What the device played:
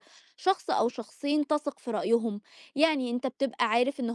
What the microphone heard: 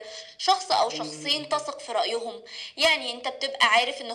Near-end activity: present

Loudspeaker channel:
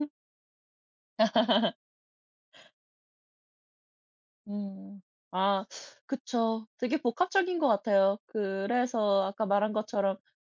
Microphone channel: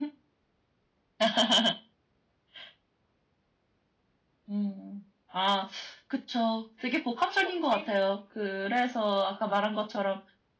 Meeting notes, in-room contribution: present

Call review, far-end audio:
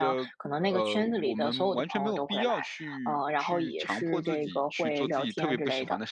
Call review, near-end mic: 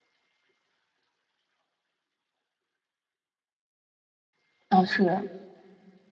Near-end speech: present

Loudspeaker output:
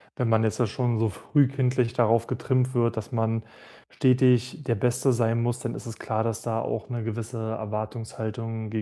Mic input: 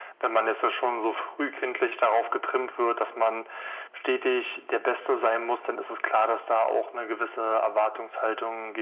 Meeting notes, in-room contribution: none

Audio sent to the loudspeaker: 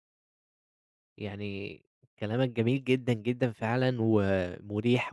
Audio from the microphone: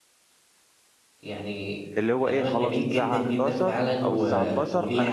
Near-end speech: present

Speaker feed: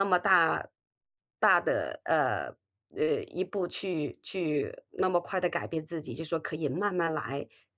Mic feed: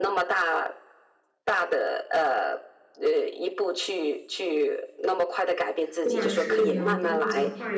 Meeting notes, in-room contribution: present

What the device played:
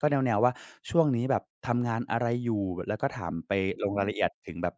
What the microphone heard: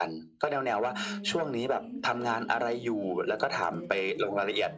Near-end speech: present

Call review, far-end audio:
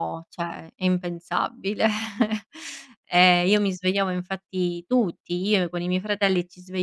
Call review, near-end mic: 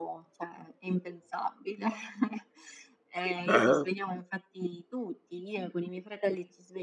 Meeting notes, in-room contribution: present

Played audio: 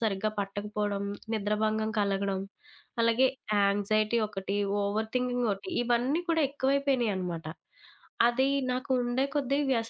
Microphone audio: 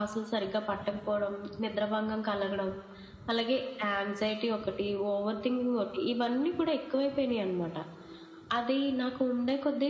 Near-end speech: none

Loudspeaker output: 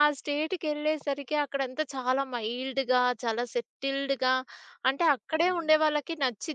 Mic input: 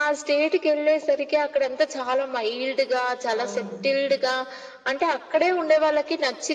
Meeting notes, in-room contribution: present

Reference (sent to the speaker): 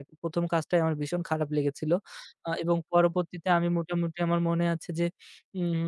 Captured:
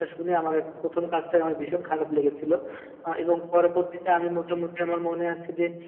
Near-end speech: none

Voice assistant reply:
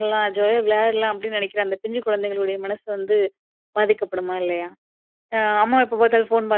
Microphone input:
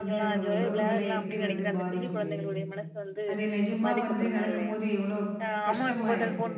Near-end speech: present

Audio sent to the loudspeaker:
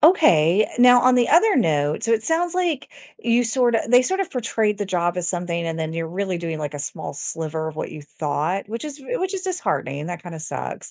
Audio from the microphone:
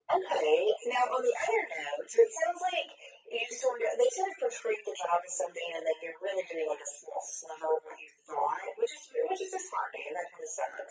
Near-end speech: none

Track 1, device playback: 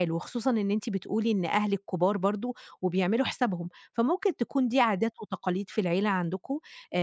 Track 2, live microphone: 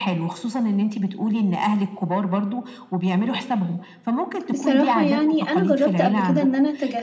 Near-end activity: present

